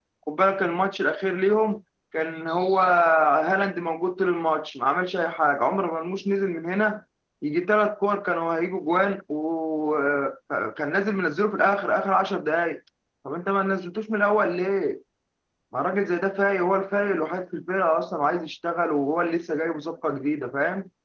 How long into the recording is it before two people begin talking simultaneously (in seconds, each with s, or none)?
none